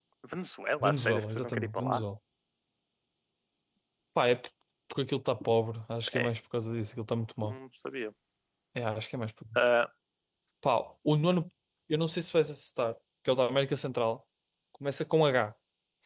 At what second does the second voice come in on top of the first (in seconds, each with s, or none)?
0.8 s